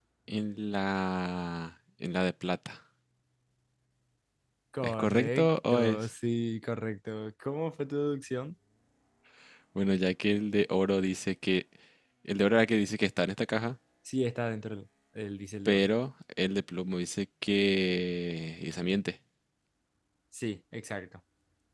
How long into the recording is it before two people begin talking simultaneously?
4.8 s

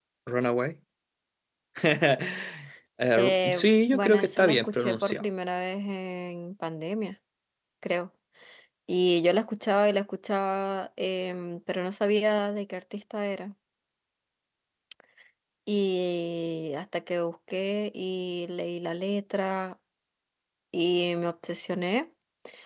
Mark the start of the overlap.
3.2 s

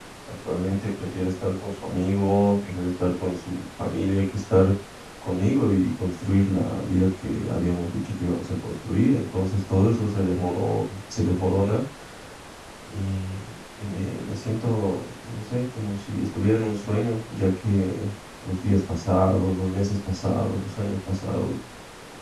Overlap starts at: none

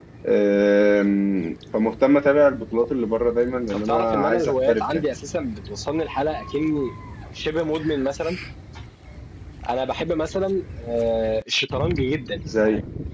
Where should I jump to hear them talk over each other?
3.7 s

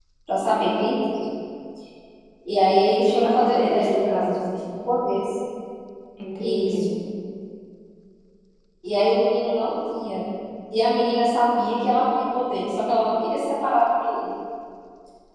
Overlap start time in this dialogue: 2.9 s

